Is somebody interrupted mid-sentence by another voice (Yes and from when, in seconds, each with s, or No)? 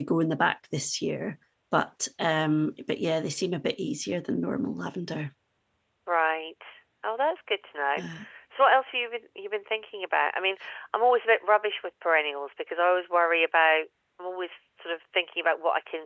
No